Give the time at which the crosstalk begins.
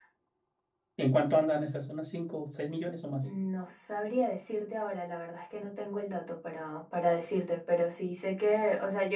none

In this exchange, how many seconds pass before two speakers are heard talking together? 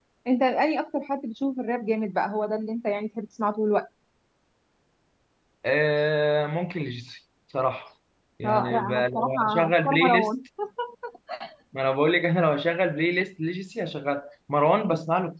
8 s

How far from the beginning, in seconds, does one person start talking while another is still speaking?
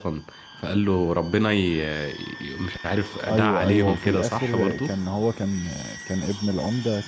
3 s

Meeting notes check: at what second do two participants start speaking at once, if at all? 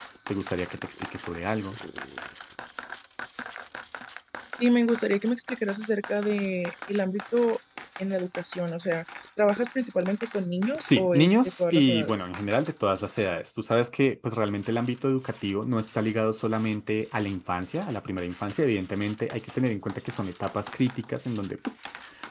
11 s

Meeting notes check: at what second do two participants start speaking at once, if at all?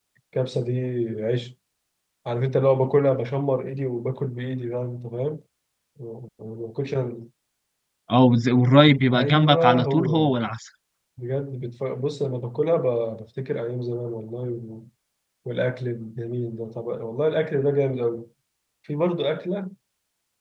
9 s

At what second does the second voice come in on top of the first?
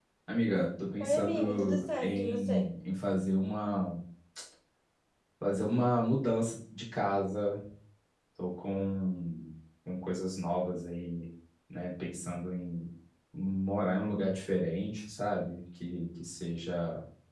1 s

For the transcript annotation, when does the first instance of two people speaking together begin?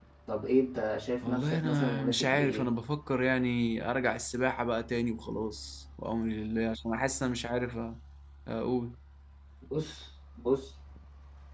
1 s

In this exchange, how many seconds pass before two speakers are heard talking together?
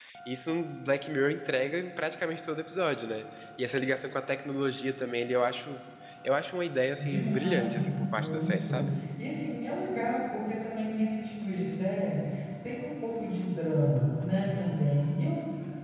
7 s

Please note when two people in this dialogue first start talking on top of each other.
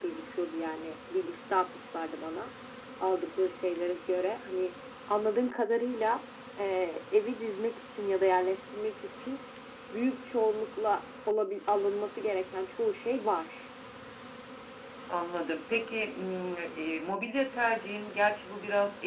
none

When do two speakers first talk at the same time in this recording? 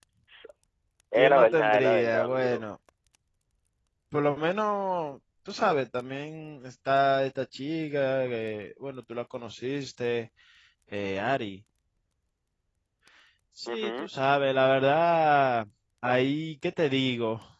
1 s

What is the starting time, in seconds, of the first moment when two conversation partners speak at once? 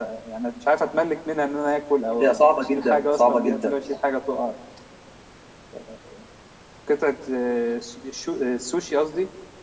2 s

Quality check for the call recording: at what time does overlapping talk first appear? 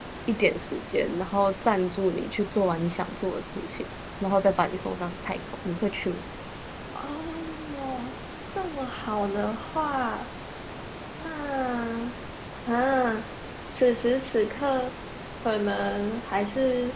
none

